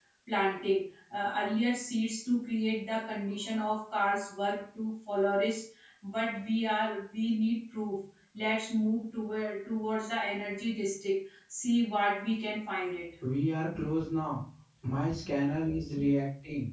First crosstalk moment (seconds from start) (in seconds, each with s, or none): none